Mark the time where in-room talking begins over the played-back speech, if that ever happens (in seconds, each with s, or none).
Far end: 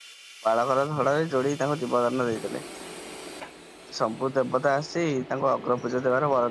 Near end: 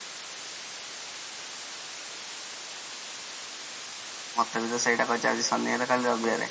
4.4 s